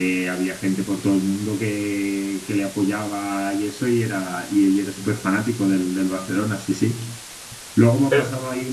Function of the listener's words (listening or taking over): listening